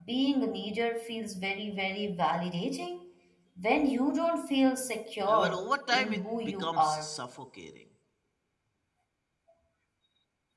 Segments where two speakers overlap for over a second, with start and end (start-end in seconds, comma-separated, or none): 5.3-7.1